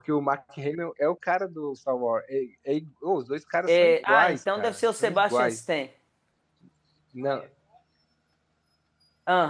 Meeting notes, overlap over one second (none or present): present